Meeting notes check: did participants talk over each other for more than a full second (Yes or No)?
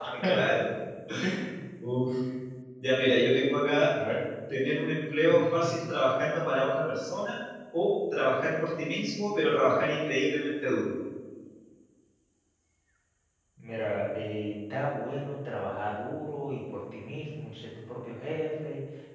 No